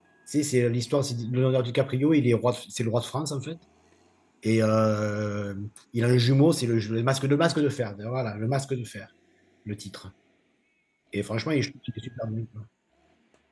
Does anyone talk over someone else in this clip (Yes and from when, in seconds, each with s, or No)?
No